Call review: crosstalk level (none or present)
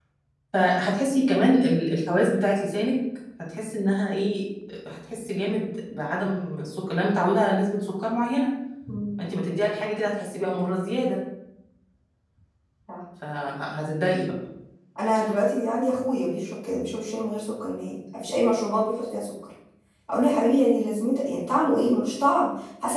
none